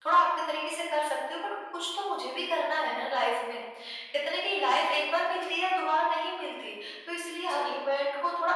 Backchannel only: Yes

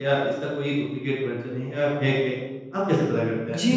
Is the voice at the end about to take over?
Yes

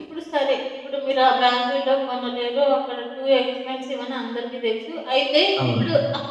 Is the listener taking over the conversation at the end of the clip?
No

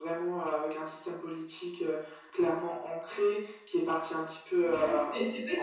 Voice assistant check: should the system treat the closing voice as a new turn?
Yes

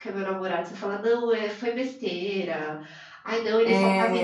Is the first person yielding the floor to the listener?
No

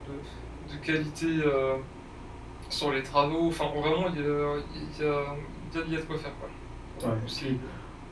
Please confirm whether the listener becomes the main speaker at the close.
Yes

